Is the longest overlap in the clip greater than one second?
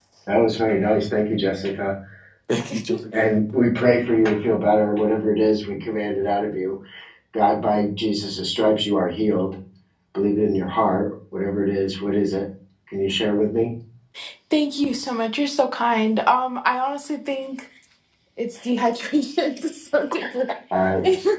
No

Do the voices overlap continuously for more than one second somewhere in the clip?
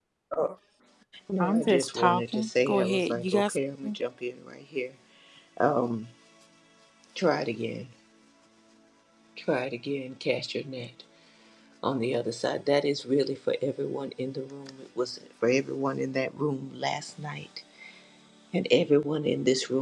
Yes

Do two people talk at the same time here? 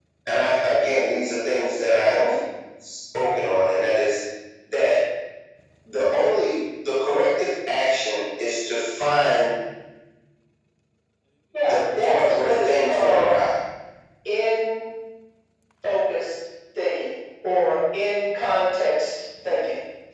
Yes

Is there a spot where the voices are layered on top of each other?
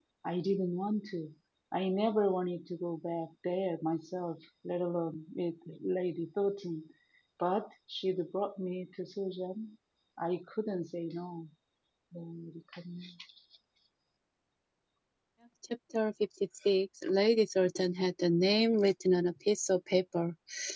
No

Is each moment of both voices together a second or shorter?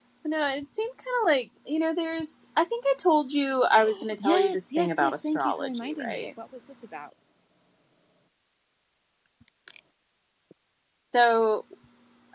No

